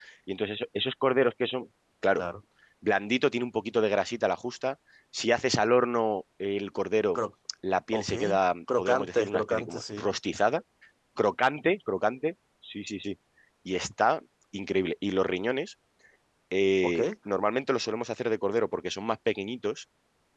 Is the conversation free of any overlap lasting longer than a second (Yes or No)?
No